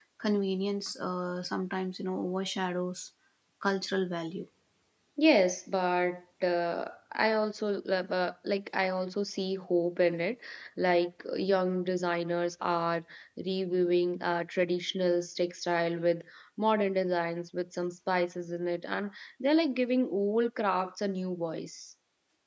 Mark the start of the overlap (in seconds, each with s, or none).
none